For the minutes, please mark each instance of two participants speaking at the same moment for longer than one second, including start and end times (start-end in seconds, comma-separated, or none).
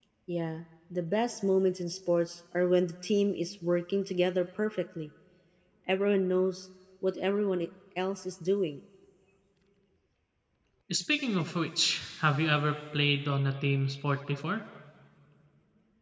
none